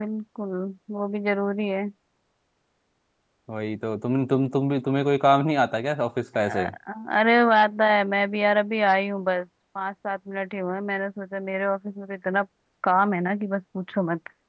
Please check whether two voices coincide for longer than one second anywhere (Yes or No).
No